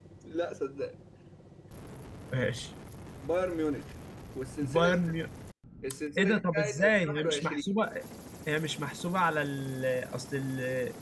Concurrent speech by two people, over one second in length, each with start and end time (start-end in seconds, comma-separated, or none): 6.2-7.8